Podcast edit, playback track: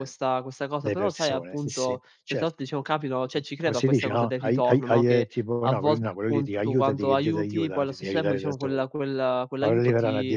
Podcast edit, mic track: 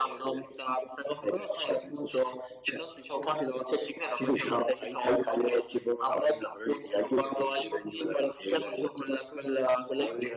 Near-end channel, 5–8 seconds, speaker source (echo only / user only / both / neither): echo only